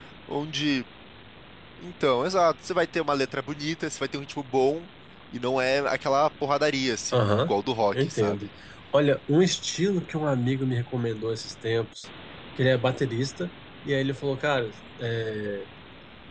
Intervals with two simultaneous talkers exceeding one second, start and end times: none

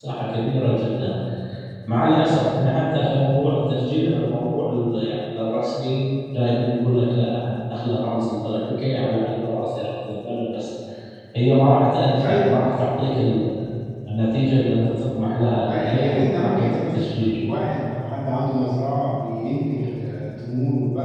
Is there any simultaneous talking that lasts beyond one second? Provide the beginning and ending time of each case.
15.6-17.4

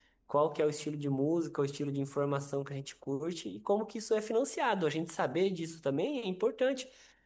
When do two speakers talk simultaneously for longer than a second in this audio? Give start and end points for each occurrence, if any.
none

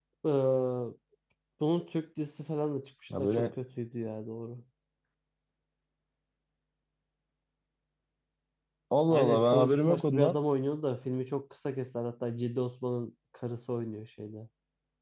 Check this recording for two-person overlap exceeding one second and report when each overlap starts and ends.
9.1-10.3

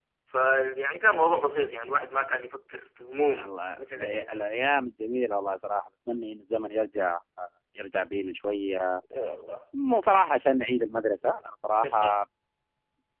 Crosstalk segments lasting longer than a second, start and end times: 3.2-4.4

